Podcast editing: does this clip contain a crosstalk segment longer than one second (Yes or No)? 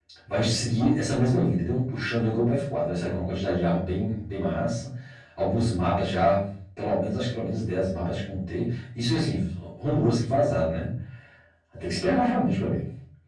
No